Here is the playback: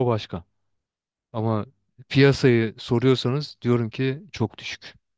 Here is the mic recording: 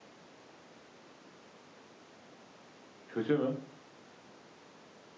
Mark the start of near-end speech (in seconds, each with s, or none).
3.1 s